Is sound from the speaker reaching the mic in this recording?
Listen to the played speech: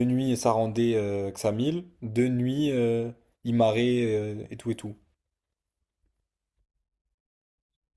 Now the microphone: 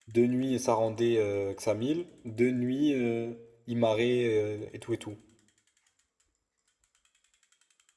Yes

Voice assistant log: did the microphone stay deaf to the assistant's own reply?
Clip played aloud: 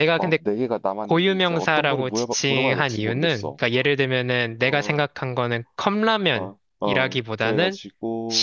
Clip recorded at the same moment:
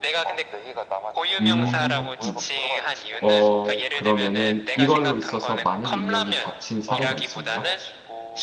No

